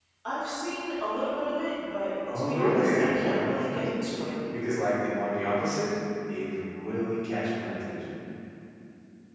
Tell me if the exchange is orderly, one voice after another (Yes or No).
No